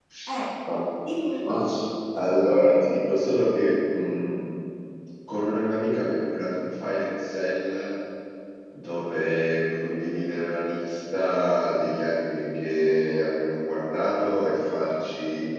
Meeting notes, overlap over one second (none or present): none